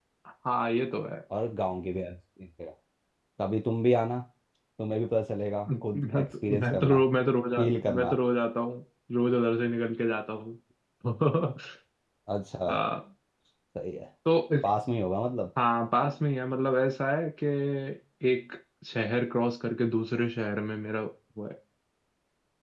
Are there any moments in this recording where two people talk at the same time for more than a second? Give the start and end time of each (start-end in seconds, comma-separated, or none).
5.7-7.0